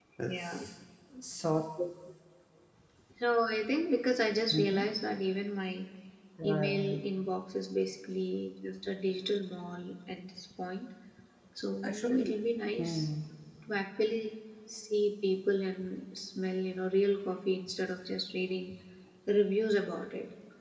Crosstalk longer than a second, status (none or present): none